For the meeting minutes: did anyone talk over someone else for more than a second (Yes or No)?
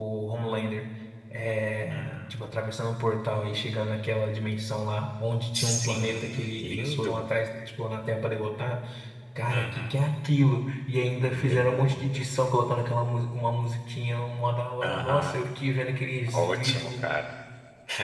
Yes